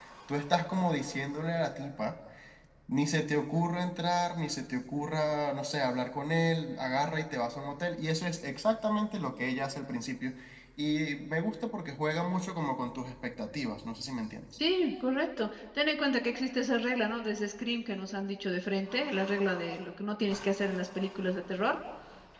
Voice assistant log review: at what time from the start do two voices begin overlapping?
none

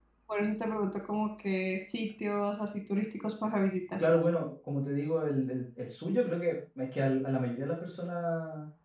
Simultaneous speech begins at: none

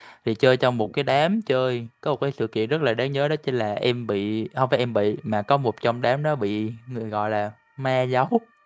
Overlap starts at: none

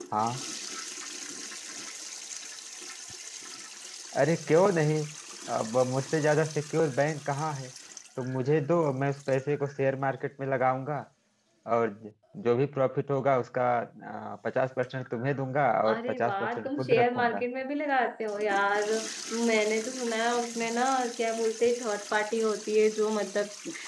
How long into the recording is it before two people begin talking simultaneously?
16 s

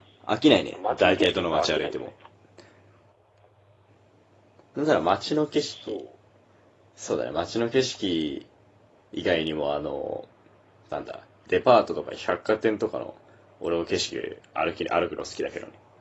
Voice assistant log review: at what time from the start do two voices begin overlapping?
1 s

